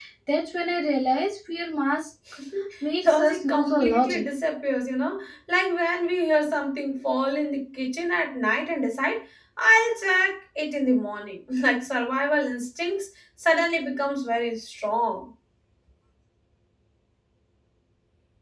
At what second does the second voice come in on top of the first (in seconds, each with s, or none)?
3.0 s